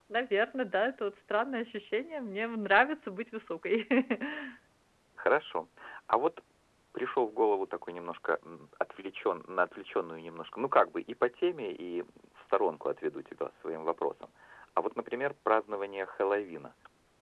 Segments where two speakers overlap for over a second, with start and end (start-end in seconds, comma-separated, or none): none